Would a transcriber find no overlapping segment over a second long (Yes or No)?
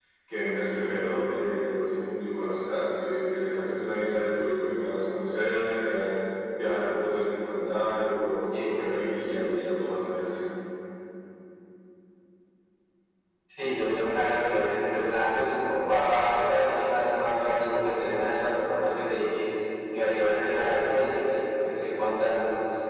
Yes